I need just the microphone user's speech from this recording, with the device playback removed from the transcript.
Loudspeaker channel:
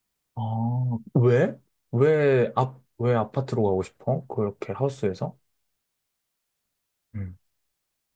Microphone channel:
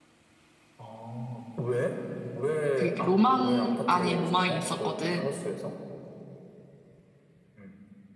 그 로망 아닌 로망이 있었거든.

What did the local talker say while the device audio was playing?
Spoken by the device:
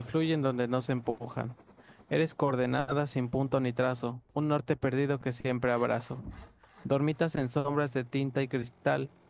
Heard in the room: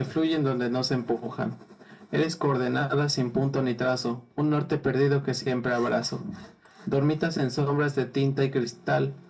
none

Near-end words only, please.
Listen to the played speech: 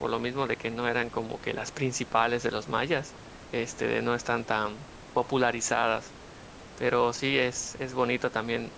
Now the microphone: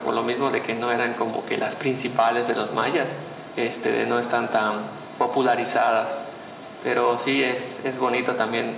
none

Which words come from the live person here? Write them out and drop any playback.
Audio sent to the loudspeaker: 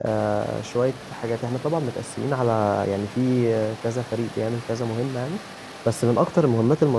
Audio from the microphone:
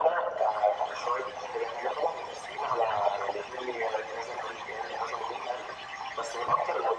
none

